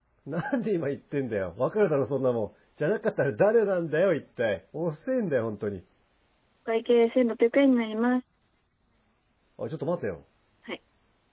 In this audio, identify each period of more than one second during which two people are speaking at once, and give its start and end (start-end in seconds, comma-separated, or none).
none